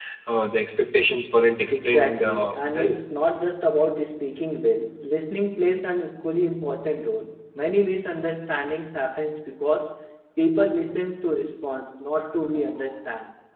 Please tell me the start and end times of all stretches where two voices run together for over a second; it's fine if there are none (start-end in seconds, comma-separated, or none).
1.7-3.1